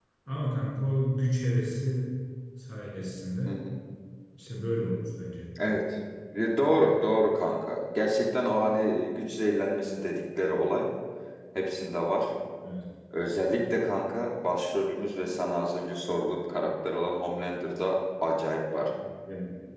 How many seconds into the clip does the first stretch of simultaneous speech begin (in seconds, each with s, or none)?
none